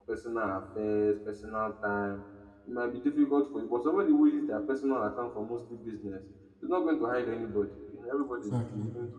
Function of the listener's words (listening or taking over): listening